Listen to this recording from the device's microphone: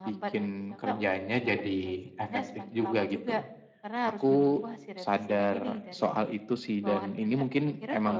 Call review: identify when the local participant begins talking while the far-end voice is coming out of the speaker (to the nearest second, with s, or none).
none